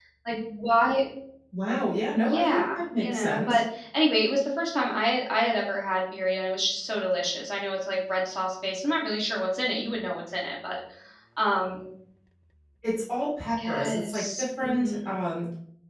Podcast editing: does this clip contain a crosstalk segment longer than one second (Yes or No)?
Yes